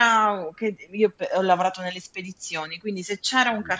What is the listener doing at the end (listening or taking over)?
listening